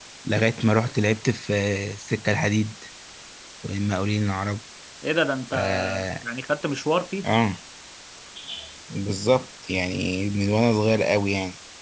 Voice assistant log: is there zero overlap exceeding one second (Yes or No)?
Yes